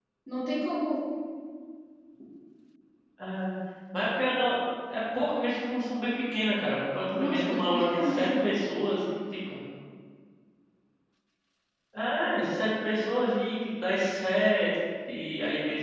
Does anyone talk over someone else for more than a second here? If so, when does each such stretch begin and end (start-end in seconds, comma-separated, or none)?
7.1-8.4